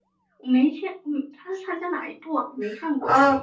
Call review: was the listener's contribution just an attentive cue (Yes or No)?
No